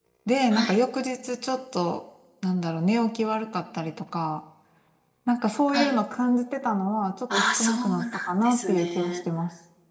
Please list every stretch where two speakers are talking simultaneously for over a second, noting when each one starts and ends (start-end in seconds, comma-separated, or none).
7.6-9.2